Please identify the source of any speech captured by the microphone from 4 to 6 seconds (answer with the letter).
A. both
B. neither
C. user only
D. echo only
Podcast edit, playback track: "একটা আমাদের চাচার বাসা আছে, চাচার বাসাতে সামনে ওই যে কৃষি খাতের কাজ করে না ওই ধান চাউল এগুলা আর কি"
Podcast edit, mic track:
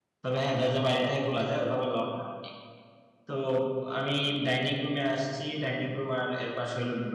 C